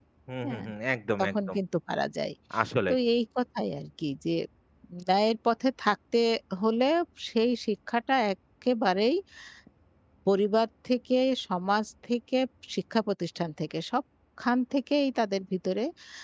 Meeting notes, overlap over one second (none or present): none